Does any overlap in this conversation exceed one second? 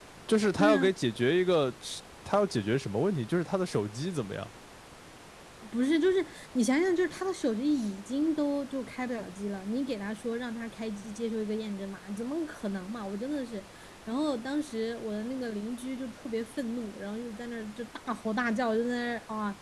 No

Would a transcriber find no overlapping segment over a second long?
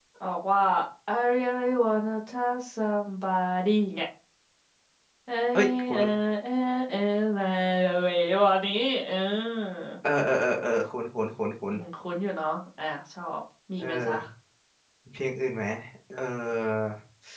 Yes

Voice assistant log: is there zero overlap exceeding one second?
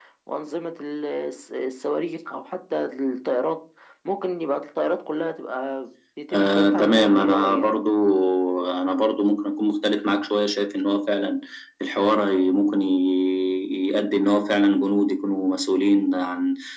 No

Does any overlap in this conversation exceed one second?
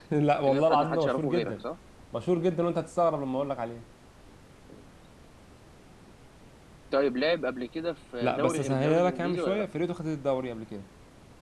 Yes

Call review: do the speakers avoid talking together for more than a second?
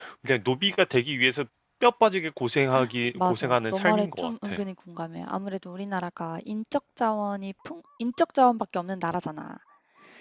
No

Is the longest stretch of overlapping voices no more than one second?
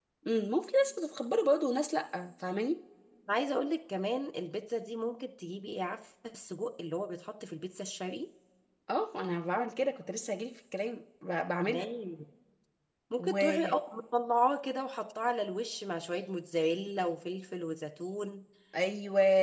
Yes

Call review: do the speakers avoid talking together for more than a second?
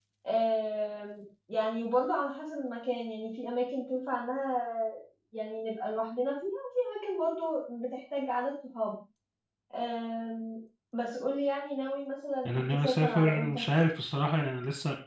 No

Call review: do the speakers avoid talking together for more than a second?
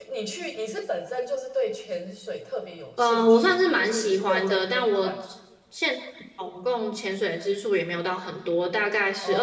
No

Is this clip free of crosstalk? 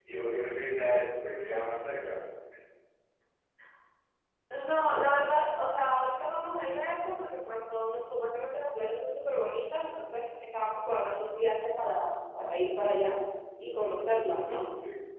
Yes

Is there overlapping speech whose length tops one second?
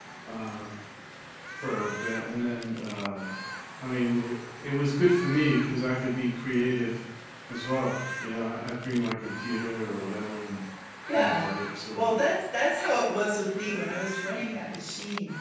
No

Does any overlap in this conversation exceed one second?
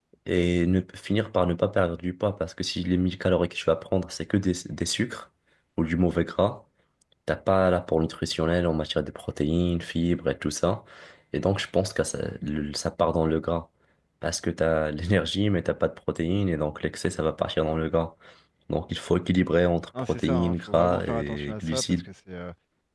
Yes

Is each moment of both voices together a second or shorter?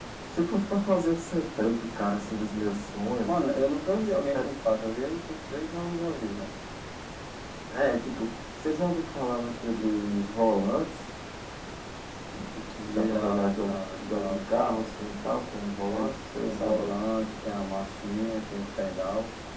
No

